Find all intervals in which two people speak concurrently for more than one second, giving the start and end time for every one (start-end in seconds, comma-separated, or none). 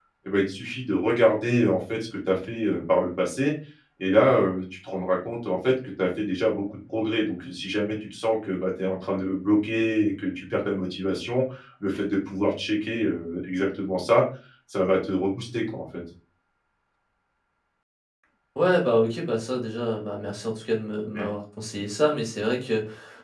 none